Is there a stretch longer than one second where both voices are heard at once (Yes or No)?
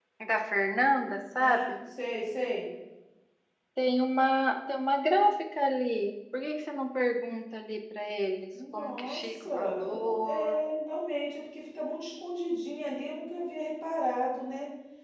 Yes